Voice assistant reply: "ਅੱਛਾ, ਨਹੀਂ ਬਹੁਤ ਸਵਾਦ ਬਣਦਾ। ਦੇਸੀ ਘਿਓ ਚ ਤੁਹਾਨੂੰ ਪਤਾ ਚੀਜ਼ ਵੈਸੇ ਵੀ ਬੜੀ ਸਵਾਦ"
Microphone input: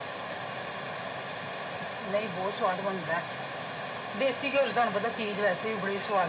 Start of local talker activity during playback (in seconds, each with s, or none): none